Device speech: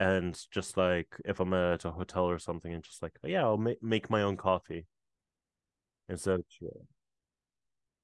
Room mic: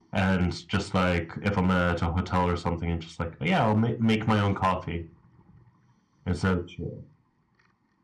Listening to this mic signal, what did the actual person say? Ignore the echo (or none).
none